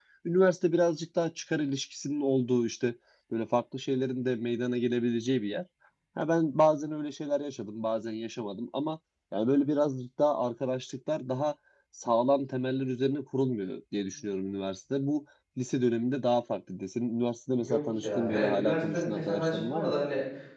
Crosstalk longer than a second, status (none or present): present